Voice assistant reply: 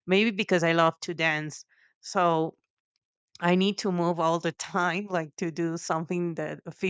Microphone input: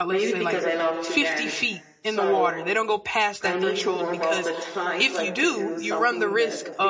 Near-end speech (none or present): present